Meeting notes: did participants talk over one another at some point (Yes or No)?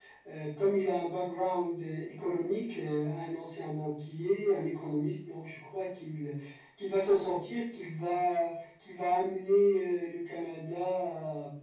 No